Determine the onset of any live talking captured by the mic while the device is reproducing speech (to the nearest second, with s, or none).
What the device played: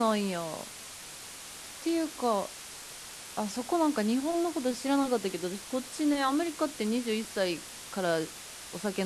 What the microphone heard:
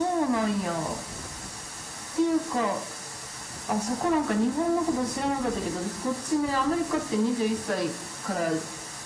none